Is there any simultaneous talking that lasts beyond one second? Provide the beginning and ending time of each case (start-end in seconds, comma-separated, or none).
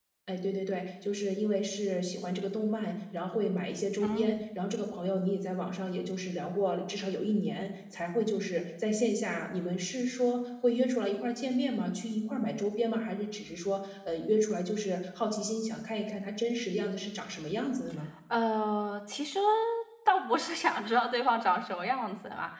none